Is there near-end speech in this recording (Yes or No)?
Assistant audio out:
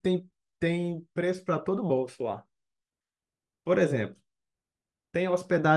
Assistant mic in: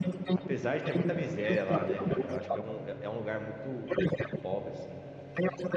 Yes